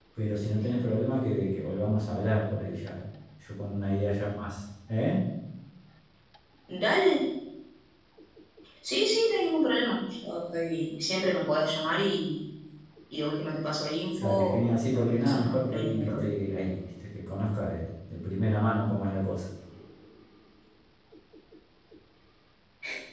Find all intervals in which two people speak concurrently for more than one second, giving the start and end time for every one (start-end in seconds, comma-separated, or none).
14.2-16.3